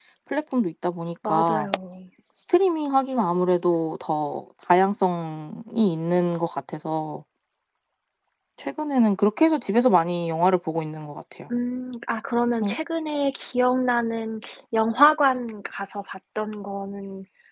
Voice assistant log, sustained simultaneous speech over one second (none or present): none